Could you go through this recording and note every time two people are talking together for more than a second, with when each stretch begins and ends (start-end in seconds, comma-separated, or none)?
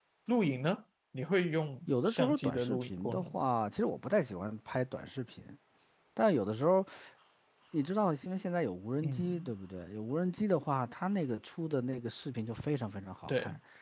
1.9-3.5